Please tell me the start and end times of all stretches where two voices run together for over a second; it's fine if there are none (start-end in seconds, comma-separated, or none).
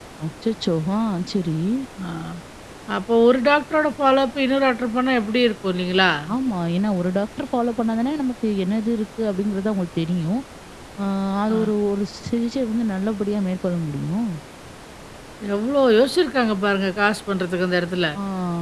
none